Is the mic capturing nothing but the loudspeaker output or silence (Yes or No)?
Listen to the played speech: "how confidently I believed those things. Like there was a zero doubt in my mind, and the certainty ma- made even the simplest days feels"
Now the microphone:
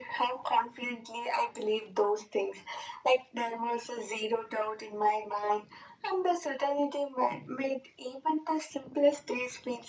Yes